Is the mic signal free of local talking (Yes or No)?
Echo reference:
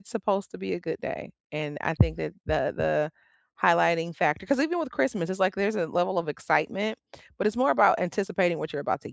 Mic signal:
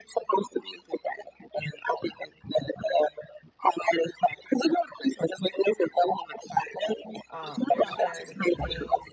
No